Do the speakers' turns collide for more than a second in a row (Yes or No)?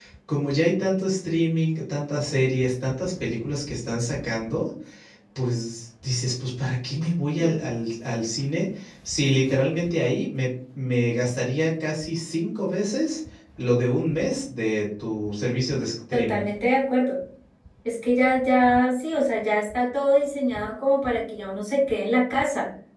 No